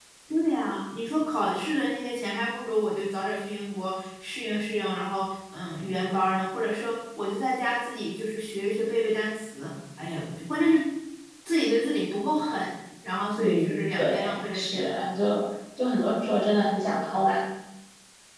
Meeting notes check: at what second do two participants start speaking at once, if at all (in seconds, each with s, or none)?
13.4 s